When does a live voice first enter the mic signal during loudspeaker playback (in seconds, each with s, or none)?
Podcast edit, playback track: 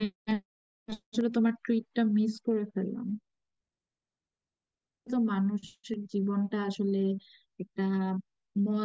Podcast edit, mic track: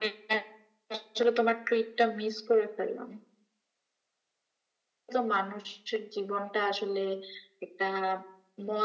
none